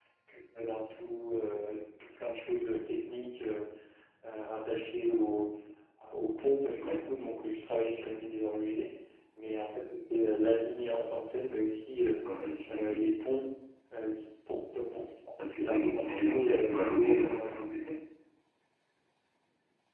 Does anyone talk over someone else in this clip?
Yes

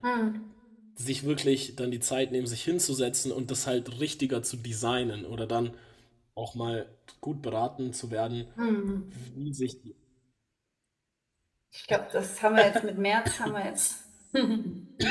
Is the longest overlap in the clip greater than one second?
No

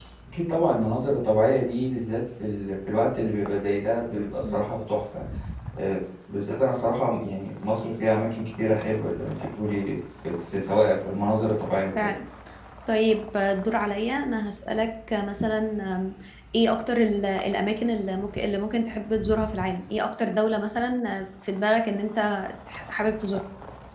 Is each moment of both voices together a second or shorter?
Yes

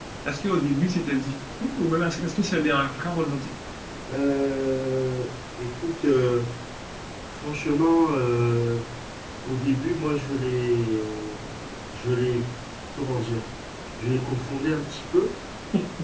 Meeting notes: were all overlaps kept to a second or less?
Yes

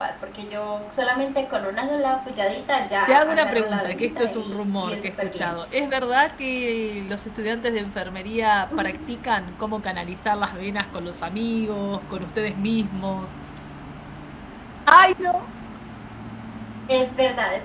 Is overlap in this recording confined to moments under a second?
No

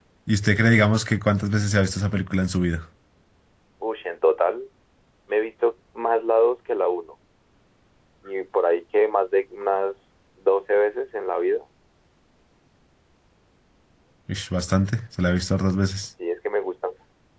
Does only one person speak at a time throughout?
Yes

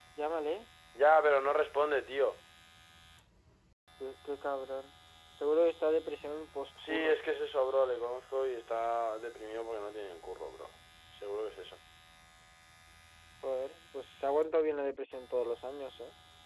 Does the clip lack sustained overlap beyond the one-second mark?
Yes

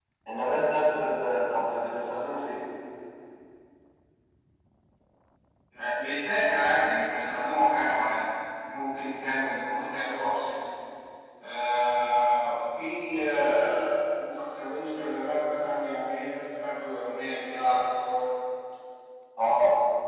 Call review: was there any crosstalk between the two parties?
No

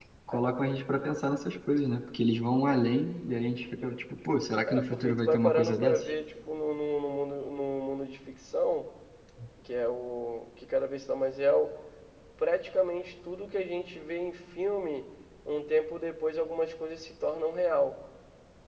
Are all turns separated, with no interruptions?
No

